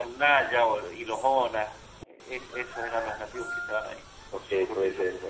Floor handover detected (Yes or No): Yes